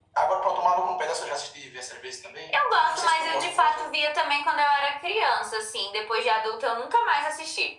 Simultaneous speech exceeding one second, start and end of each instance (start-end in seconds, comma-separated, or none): 2.5-3.9